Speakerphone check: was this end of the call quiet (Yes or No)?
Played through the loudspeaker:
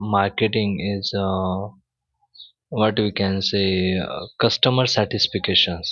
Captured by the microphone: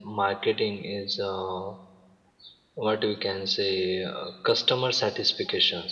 Yes